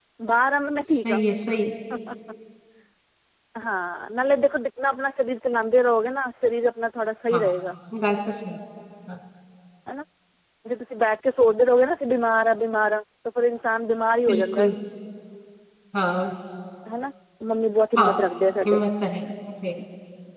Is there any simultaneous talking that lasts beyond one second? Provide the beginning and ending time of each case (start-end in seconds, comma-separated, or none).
none